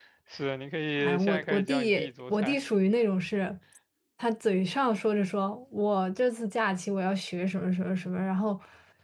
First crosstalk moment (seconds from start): 1 s

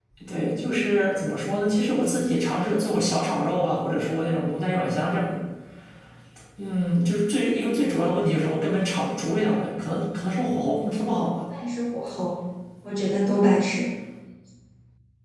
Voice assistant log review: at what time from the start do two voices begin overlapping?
none

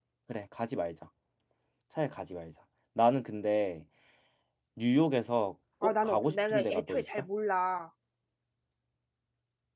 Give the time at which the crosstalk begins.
6 s

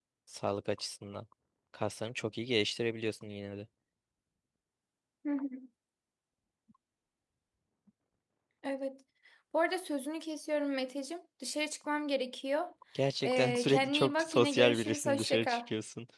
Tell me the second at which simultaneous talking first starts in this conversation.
13 s

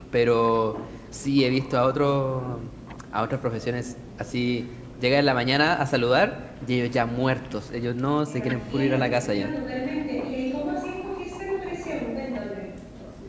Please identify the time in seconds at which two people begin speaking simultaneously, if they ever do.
8 s

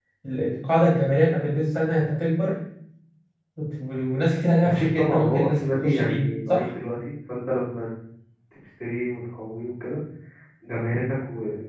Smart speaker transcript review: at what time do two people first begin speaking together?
5 s

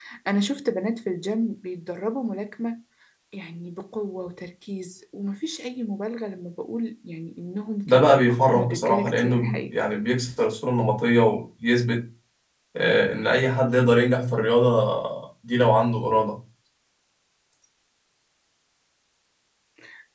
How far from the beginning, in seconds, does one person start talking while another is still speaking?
8 s

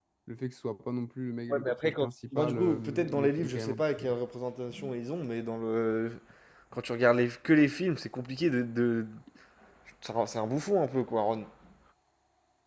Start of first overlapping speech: 2 s

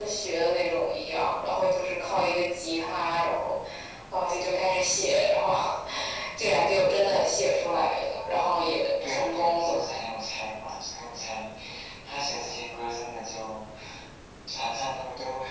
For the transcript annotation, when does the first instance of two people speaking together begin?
9 s

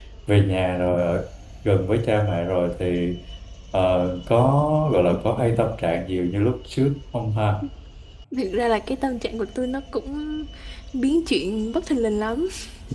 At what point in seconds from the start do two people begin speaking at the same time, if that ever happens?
none

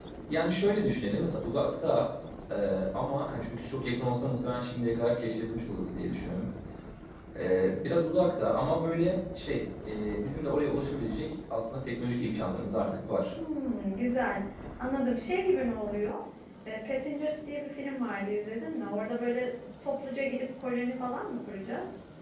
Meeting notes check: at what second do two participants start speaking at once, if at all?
none

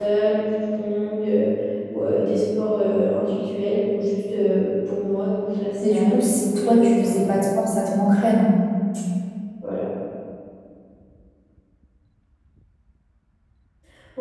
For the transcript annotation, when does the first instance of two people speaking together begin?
6 s

